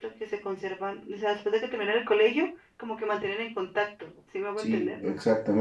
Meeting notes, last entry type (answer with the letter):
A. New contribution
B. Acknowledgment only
A